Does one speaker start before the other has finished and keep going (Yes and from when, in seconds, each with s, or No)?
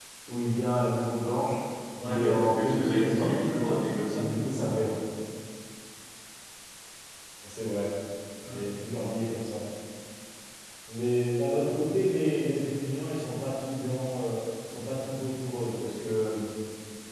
Yes, from 2.0 s